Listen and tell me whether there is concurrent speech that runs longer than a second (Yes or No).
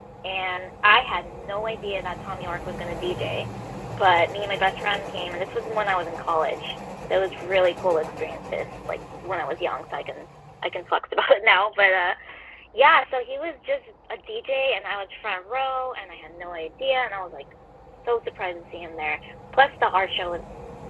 No